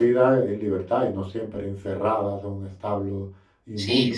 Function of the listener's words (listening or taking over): taking over